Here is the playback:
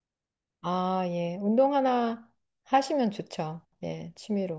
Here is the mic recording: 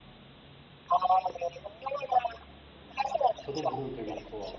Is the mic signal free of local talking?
No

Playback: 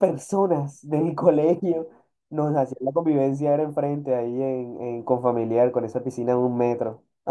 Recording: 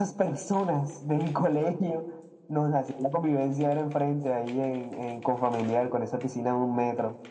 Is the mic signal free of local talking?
Yes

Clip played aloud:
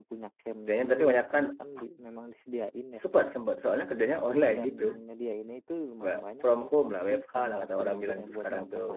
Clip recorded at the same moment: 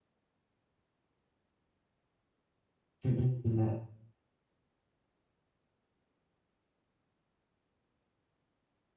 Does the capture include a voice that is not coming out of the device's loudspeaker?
Yes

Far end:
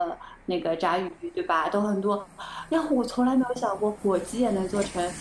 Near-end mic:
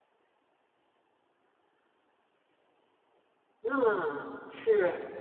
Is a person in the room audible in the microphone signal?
Yes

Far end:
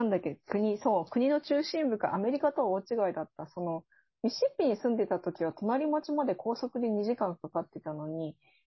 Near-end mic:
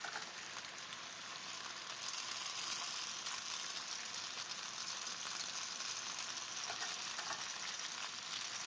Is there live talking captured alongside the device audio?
No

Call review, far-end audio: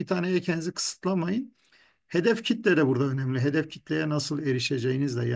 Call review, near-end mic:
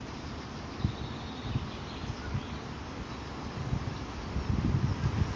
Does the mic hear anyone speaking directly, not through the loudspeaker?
No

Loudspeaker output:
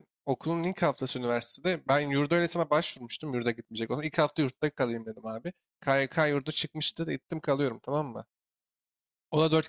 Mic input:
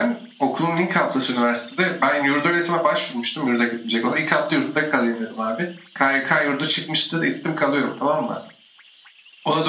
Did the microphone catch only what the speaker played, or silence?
Yes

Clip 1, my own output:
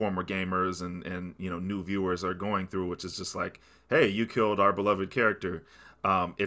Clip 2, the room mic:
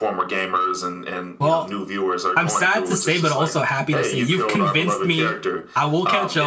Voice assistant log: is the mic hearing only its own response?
No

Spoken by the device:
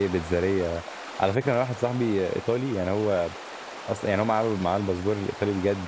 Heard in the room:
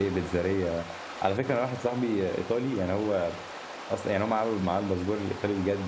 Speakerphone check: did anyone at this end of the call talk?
No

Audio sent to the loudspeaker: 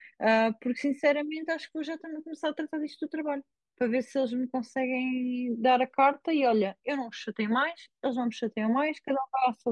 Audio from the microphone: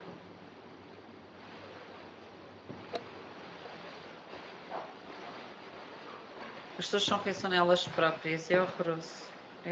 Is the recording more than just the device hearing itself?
Yes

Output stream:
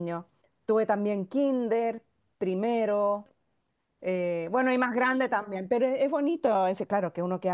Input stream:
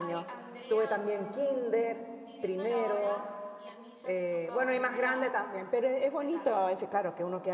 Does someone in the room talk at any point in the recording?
Yes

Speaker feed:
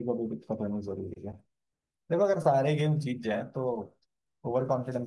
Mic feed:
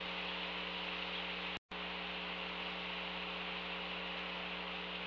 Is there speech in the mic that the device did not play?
No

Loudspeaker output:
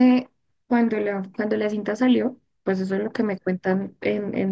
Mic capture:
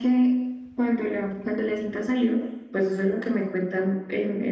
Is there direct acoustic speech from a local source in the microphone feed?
No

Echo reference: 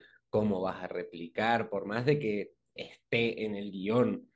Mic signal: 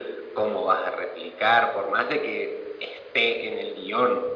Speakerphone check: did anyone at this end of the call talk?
No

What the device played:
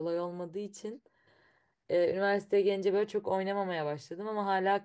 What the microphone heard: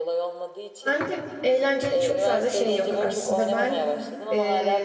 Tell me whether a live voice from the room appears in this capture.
Yes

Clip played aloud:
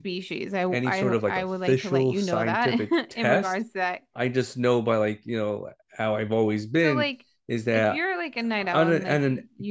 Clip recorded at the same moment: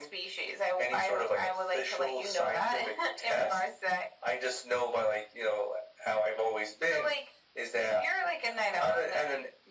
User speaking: No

